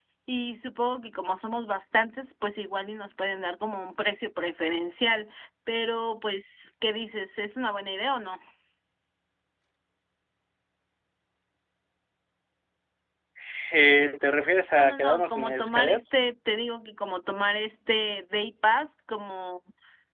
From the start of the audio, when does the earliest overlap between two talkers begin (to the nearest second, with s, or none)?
15 s